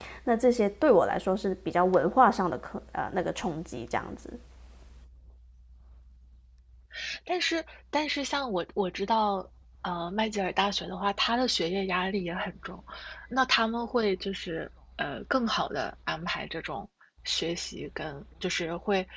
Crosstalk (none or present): none